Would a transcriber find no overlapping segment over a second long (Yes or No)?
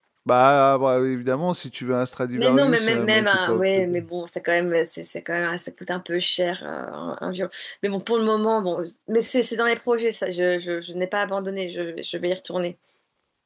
No